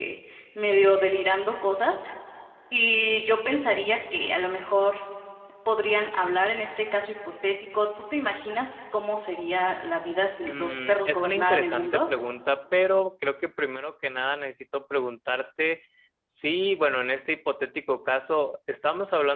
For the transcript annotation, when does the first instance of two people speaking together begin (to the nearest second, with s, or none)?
10 s